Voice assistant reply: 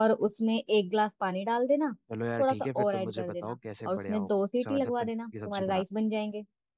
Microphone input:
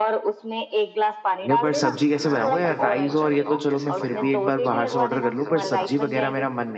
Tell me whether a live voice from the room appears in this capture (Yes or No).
Yes